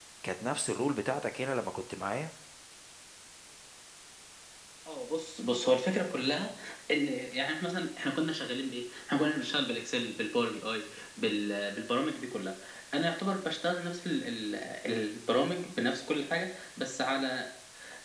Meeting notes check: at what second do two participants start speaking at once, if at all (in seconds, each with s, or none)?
none